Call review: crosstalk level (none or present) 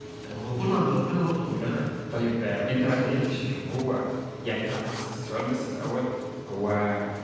present